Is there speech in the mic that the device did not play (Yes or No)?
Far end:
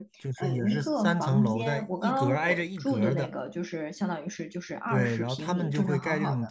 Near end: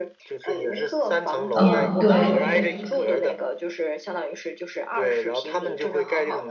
Yes